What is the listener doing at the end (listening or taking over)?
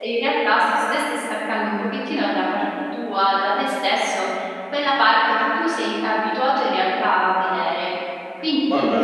listening